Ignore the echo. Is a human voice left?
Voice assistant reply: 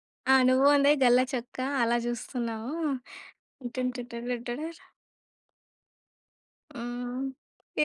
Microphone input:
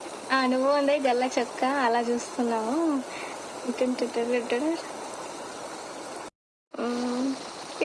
No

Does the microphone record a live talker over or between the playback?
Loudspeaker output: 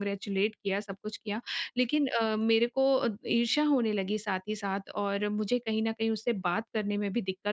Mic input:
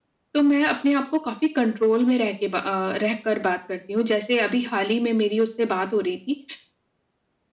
Yes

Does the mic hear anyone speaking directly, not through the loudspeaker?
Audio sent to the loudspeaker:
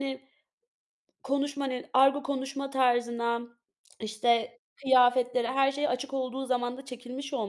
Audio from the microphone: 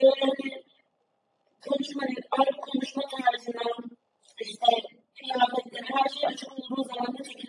No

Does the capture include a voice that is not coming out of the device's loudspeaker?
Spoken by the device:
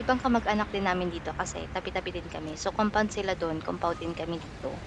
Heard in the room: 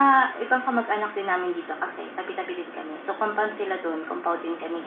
No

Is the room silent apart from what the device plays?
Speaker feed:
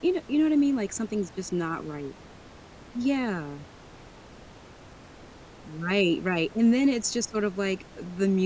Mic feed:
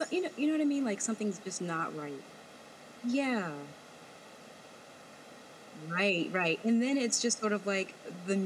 Yes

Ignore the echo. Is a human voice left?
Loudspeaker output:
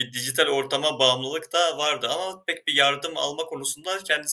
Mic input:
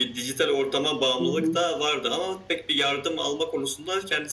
Yes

